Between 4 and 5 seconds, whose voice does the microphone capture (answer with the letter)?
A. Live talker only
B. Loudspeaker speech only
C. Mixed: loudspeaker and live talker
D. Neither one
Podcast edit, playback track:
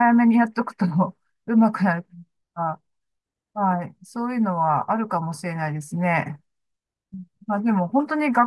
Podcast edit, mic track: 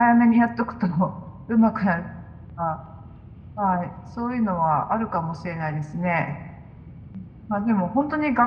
B